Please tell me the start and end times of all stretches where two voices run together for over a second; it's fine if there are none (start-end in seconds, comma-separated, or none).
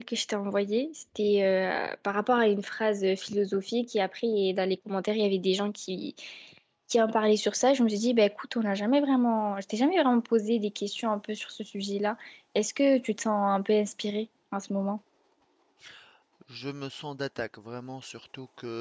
none